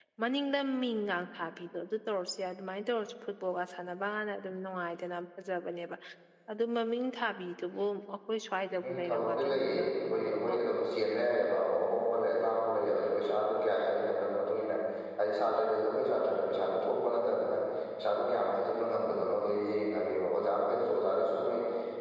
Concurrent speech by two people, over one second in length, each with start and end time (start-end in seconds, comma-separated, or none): 8.8-10.6